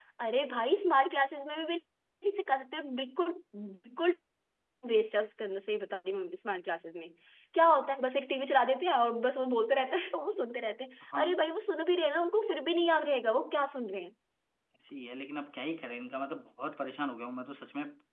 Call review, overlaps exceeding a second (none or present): none